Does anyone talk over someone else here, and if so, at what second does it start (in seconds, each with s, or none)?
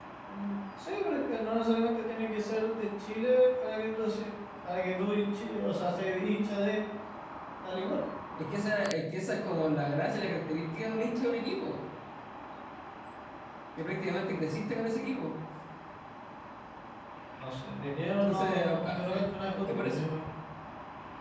18.2 s